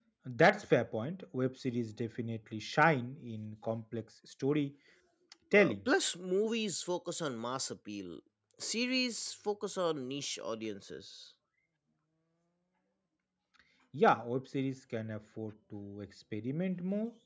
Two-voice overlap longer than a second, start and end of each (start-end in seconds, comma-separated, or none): none